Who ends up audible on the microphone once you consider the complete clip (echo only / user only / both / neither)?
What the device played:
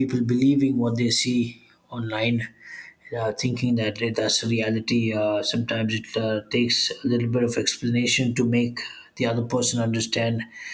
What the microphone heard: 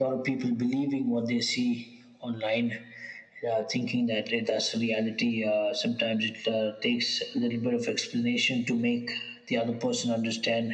echo only